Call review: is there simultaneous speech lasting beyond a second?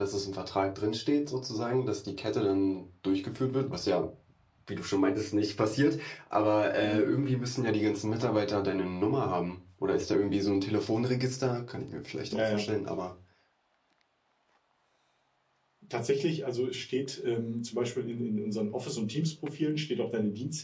No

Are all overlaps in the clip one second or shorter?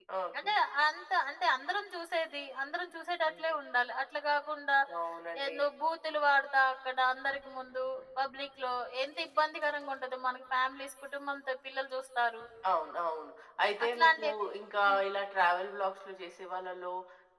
Yes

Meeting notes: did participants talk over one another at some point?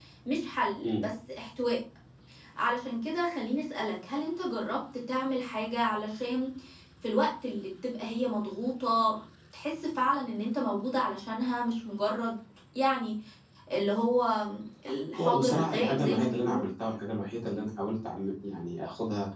Yes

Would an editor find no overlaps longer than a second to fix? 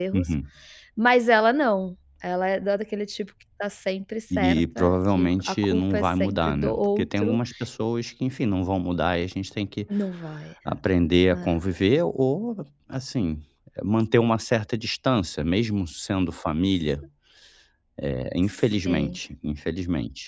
No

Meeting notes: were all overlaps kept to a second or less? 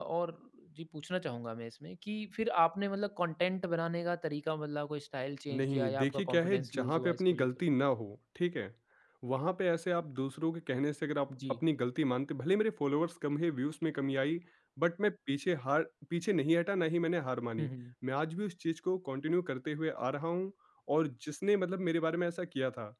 No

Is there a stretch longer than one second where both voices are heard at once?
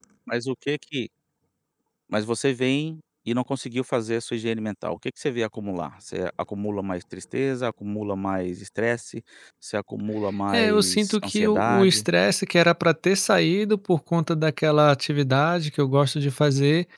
Yes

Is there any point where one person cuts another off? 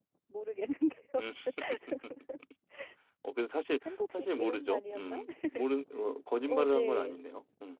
Yes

